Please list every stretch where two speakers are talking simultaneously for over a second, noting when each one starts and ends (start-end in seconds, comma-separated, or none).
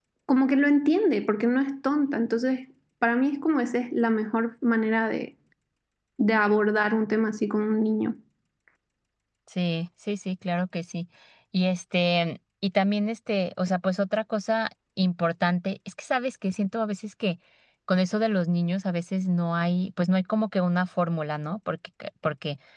none